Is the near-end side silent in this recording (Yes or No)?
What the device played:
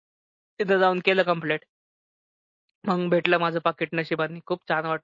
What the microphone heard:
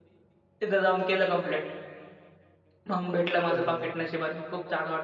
No